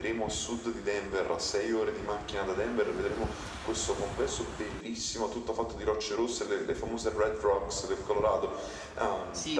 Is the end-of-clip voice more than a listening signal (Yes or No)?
Yes